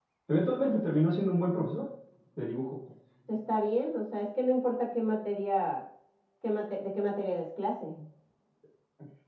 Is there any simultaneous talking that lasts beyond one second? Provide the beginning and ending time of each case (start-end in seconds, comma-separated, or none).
none